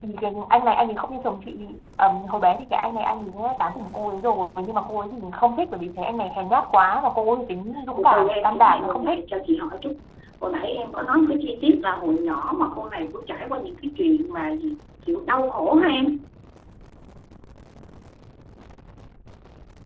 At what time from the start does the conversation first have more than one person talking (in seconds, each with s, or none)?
8.0 s